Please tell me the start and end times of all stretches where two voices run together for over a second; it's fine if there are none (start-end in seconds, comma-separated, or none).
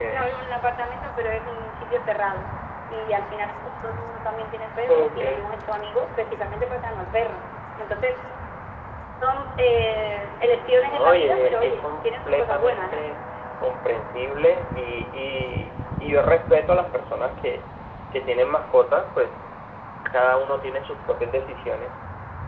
10.8-13.0